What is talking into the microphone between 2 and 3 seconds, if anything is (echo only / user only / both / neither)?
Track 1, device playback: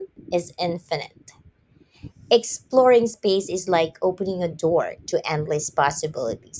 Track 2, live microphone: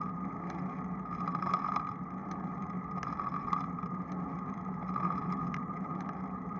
neither